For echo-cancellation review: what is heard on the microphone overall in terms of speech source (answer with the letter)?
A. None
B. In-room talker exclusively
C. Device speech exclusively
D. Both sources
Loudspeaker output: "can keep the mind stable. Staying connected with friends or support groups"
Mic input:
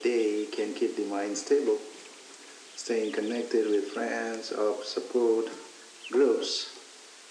C